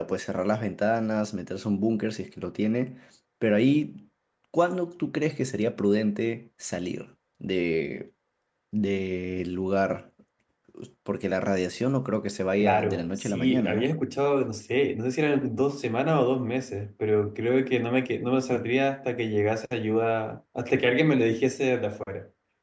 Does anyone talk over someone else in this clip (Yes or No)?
Yes